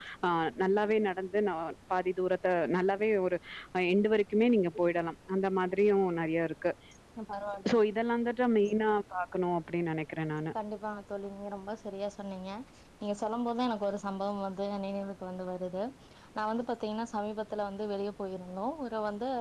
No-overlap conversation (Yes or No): Yes